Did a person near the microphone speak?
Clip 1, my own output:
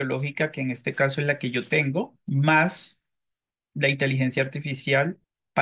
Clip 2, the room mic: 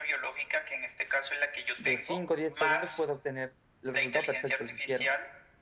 Yes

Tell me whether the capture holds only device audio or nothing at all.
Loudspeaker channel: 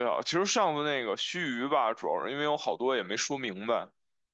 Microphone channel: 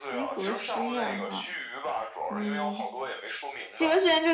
No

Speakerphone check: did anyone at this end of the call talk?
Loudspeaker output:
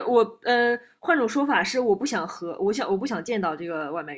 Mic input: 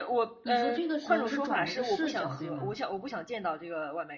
Yes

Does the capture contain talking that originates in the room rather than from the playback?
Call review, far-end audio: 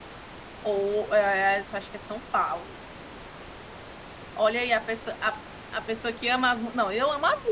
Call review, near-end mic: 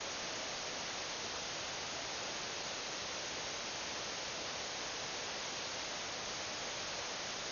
No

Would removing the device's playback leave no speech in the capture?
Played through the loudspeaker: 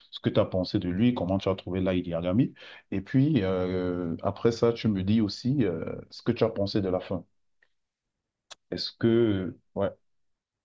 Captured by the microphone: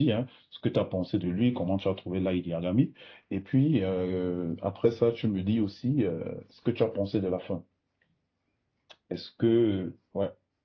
Yes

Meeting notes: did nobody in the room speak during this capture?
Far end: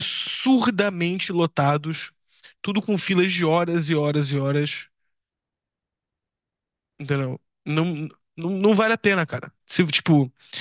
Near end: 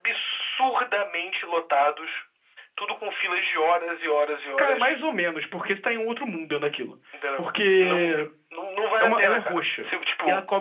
No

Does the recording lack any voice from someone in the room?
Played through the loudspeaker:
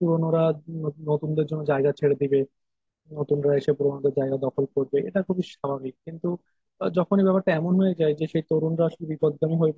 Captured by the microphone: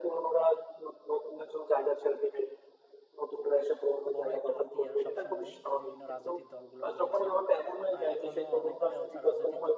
No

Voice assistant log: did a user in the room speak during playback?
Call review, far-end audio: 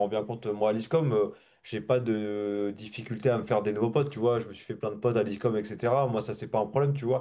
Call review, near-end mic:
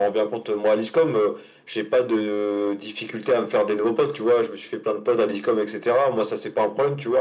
No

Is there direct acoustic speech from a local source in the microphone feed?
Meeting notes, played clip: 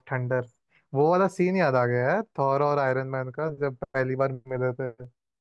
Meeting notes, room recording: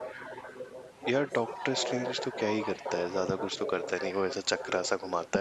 Yes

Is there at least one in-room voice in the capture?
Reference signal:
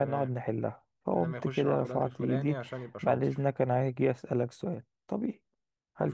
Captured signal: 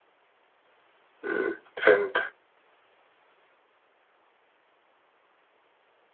Yes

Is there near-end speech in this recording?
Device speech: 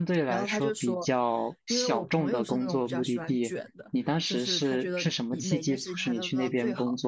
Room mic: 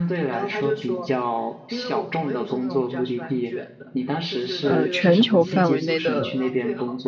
Yes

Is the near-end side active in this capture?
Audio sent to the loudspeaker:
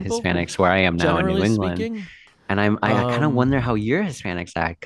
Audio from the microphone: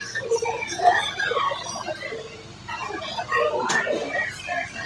No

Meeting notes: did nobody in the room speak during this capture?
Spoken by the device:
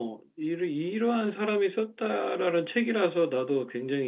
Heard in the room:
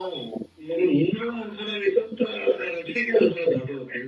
Yes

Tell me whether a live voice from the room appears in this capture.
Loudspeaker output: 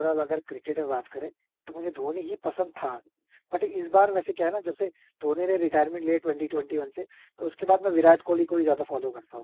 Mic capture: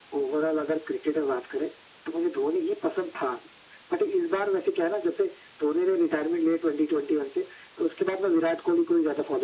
No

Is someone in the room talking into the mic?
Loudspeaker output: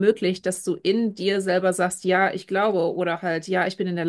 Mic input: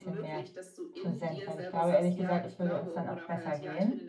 Yes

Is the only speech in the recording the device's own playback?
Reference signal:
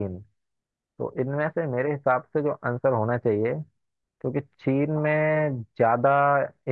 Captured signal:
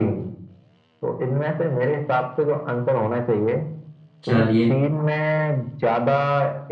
No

